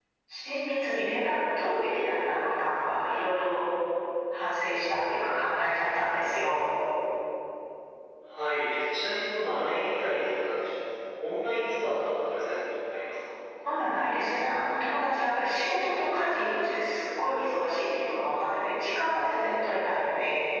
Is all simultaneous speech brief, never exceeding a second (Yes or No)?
Yes